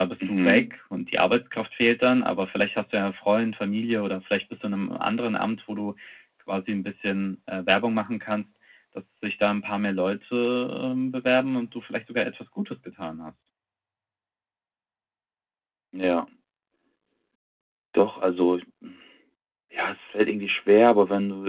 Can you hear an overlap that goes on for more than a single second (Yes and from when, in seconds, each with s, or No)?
No